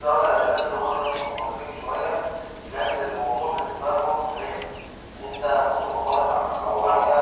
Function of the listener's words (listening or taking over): listening